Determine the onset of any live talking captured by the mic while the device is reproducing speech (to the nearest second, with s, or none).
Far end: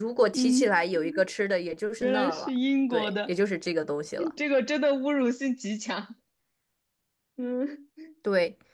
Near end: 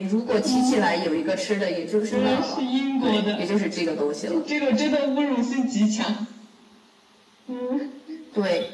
none